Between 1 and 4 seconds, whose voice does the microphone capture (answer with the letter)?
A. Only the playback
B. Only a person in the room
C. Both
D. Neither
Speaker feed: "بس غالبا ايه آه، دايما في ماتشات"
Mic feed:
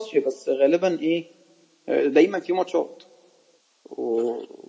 A